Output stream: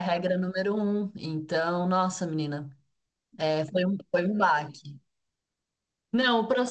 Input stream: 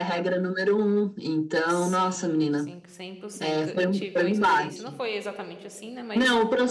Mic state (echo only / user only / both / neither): both